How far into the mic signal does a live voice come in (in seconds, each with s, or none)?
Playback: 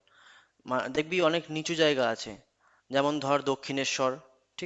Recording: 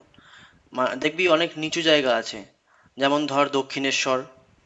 none